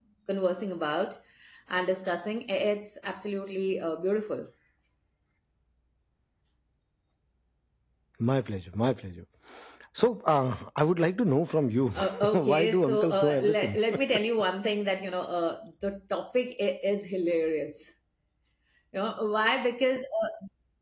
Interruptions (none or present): present